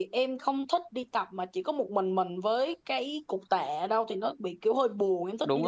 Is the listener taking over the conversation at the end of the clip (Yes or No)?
Yes